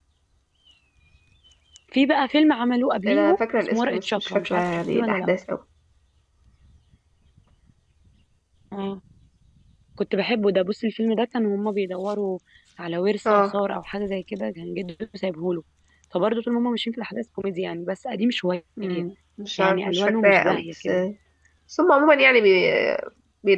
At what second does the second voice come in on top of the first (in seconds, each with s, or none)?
3.1 s